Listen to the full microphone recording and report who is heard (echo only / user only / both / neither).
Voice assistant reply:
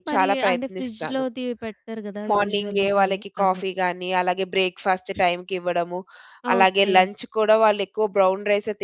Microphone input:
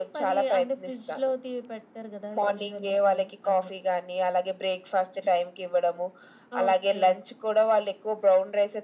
echo only